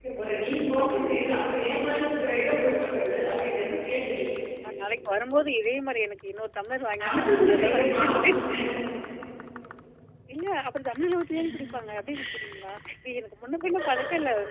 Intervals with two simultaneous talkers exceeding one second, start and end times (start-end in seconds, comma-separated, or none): 7.0-8.4